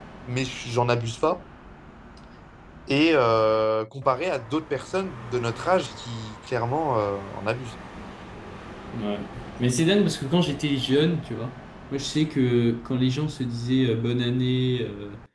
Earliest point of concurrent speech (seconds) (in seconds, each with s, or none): none